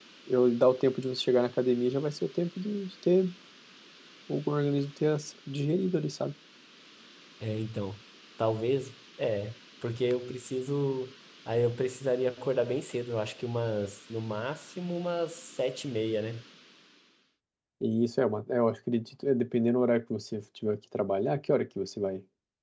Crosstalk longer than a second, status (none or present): none